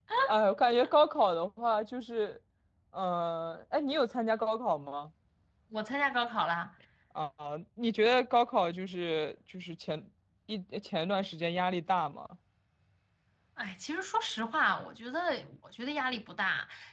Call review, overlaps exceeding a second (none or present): none